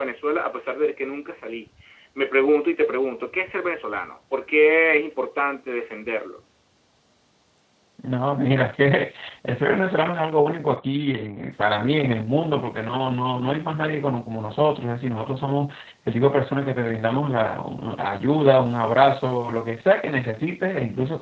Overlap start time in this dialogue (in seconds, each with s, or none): none